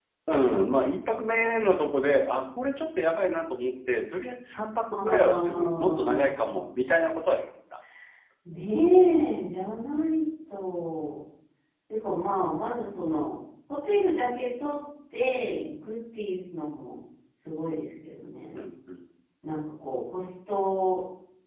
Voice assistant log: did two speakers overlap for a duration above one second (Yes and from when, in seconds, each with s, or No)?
Yes, from 4.9 s